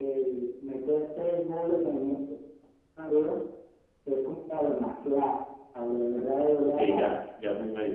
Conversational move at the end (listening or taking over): taking over